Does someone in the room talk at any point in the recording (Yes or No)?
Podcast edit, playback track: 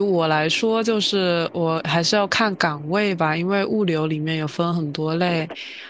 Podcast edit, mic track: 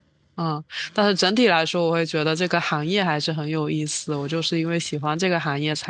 Yes